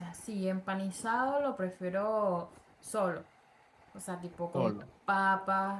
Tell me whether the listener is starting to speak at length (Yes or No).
No